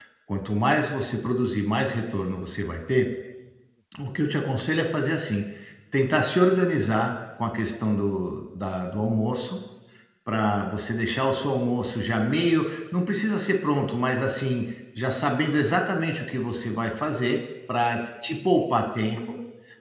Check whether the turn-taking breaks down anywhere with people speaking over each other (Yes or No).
No